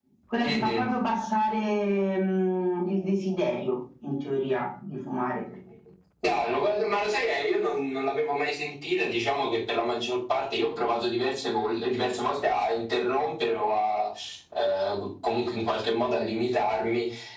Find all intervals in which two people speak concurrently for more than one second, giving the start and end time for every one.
none

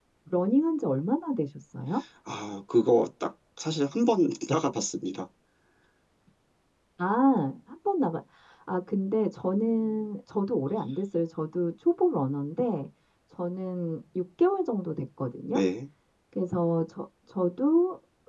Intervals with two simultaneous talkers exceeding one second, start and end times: none

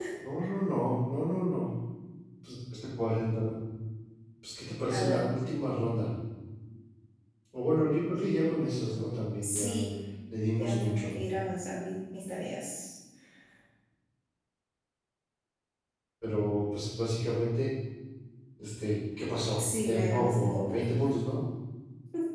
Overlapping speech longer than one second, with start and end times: 19.6-20.8

